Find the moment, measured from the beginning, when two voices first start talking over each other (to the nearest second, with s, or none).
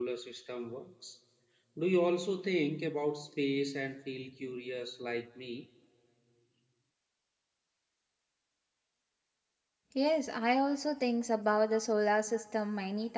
none